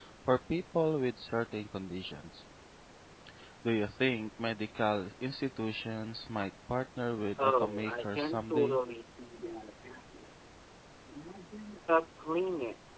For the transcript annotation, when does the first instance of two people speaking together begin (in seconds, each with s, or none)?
7.4 s